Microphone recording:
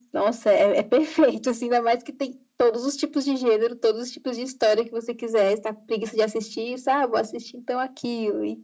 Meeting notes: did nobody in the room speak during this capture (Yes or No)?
Yes